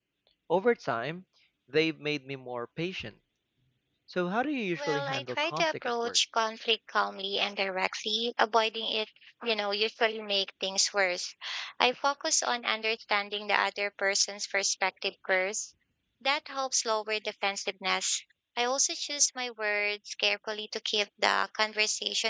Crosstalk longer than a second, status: present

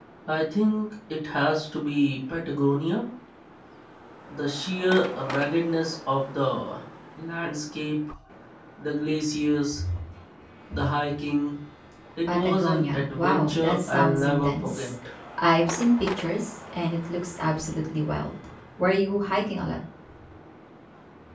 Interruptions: present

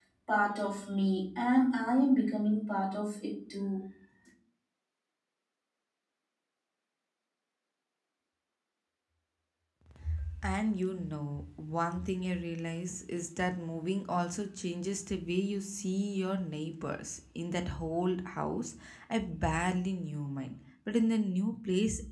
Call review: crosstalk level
none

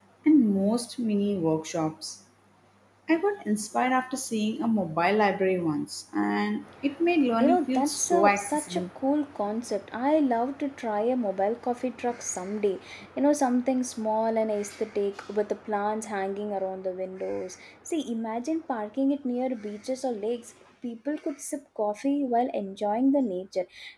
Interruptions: present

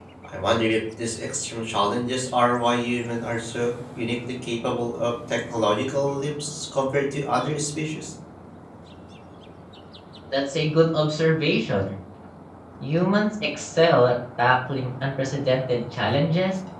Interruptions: none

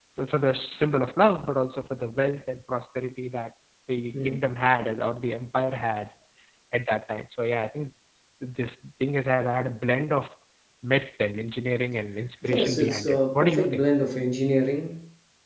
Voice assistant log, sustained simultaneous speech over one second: present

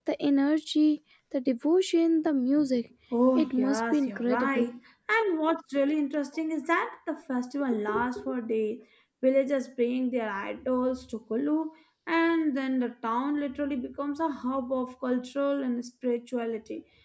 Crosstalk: present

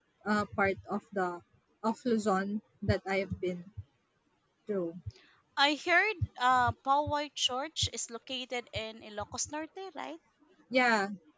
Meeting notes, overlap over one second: none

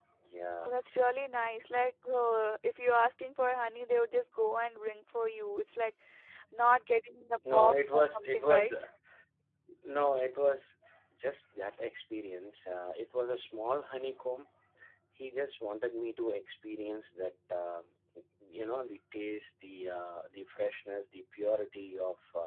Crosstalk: present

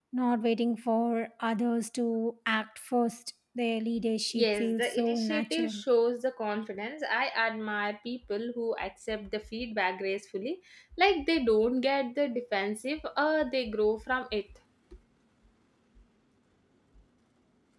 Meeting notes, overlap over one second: present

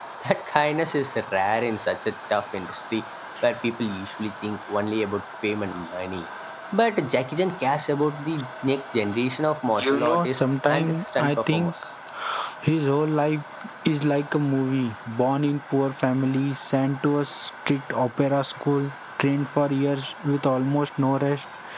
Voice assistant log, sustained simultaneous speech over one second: present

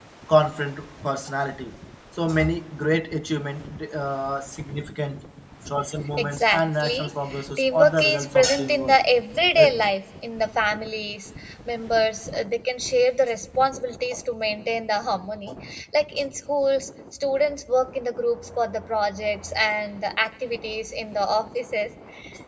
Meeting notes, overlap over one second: present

